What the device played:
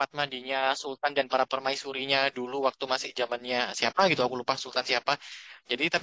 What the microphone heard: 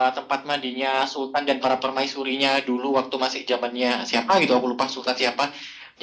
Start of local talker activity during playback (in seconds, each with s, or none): none